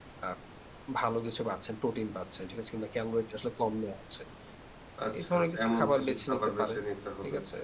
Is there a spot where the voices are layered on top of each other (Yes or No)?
Yes